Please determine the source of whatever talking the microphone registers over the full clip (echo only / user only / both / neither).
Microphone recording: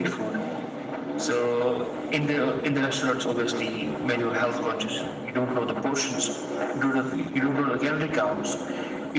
echo only